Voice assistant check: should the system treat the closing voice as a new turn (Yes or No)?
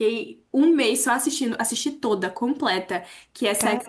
No